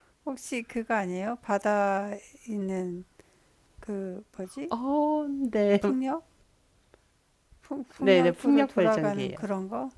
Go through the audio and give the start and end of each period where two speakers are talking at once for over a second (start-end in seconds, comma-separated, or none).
8.0-9.4